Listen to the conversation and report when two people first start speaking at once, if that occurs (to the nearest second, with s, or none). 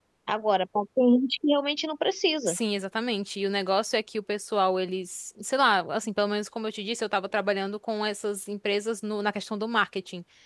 none